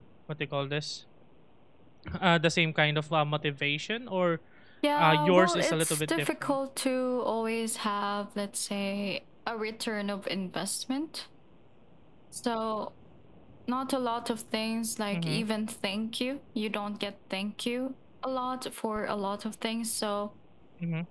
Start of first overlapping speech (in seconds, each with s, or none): 5.0 s